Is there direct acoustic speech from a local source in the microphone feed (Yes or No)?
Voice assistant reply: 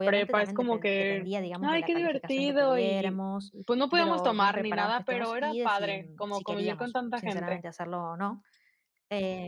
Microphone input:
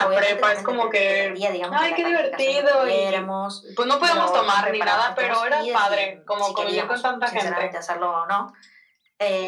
No